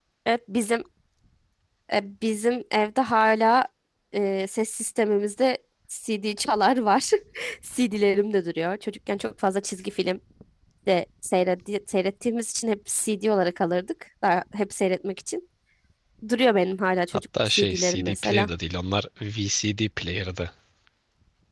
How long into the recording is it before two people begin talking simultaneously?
17.1 s

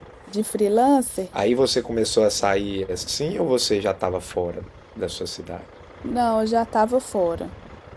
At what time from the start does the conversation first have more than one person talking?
none

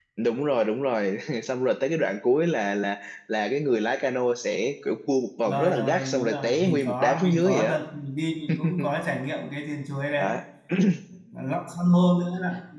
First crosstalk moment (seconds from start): 5.5 s

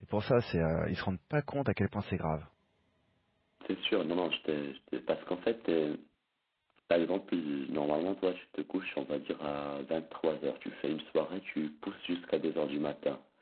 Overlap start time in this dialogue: none

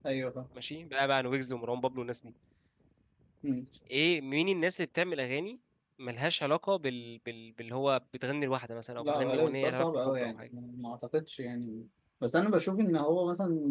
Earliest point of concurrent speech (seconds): 9.0 s

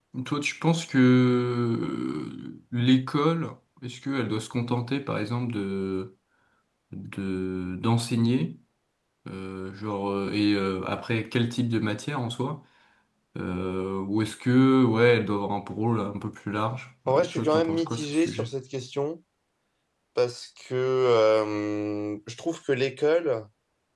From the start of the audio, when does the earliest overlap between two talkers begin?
17.1 s

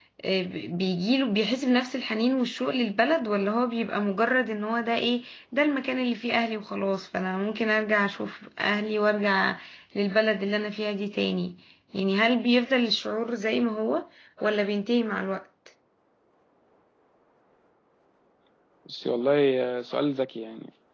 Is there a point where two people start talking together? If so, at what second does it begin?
none

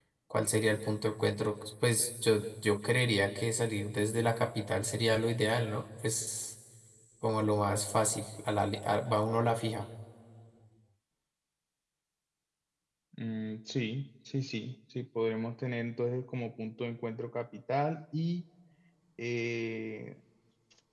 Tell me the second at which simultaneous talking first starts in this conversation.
none

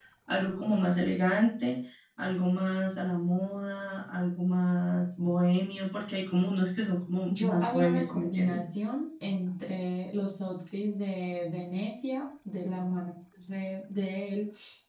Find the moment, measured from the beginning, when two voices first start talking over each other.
7.3 s

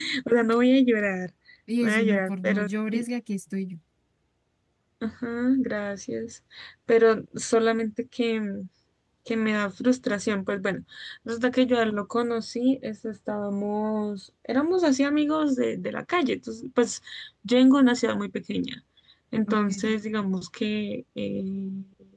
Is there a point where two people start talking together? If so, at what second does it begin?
1.8 s

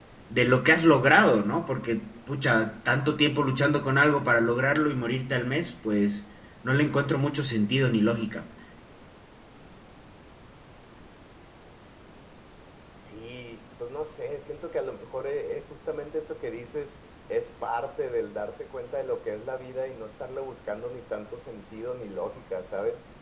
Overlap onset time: none

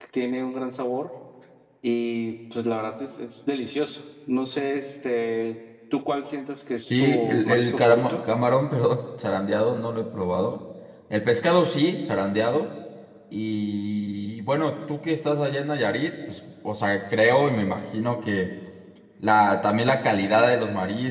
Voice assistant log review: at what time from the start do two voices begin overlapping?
6.9 s

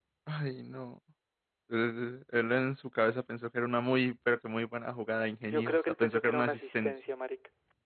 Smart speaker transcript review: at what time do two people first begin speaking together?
5.5 s

